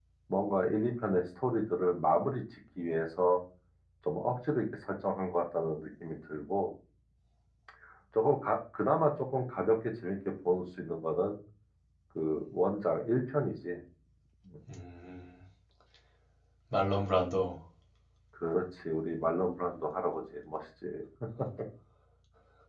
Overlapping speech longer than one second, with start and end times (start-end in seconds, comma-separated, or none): none